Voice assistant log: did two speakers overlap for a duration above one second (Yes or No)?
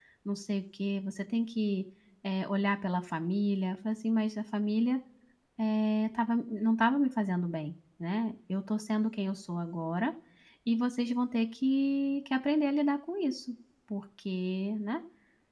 No